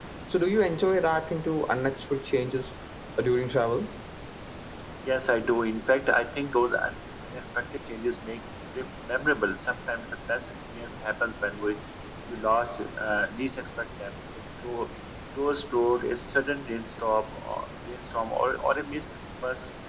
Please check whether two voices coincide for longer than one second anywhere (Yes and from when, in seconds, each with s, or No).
No